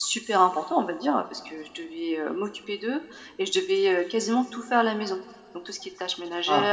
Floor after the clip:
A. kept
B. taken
A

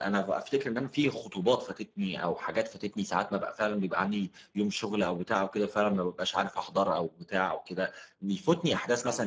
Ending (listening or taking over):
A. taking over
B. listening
B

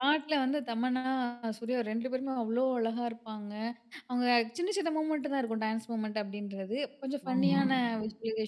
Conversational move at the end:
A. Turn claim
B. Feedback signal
B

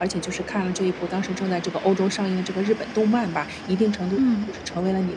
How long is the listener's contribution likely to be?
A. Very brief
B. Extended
A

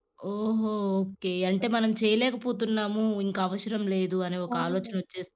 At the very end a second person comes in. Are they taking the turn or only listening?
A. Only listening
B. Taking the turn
B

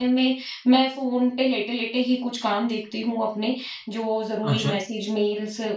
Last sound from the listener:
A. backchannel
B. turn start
A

